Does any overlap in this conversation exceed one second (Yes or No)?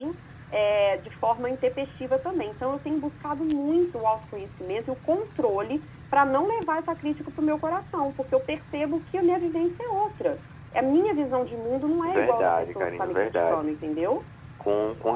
Yes